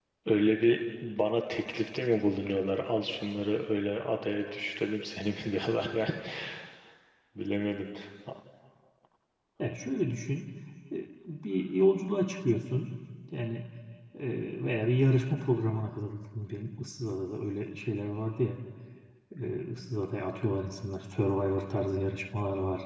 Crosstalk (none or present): none